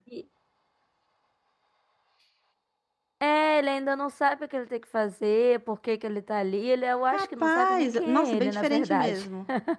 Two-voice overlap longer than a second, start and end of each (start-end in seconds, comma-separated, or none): 7.1-9.3